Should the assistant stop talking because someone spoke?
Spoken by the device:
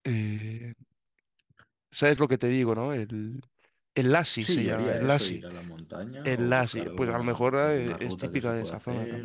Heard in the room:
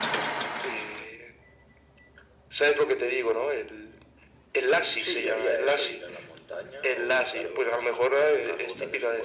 No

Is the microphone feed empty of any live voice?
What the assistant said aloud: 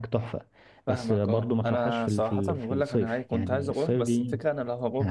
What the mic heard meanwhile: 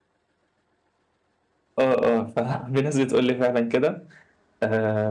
No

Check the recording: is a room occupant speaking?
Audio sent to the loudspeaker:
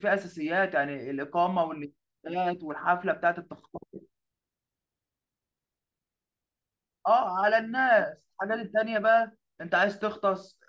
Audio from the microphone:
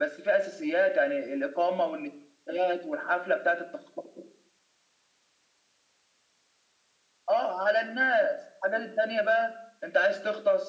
No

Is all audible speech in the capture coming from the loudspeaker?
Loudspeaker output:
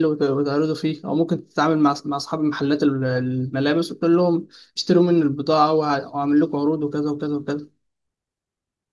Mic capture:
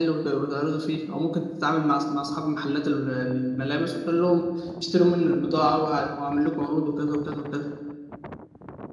Yes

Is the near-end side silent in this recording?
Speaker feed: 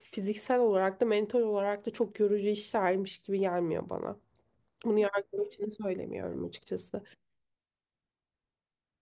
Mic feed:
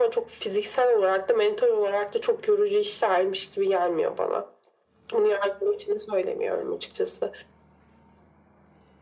Yes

